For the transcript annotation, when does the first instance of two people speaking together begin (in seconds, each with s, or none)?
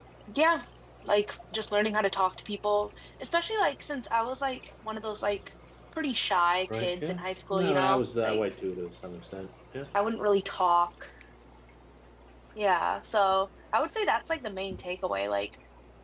6.7 s